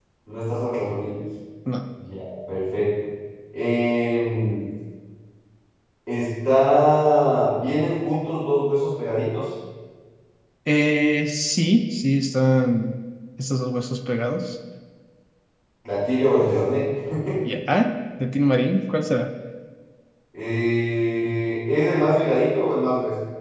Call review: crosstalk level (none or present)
none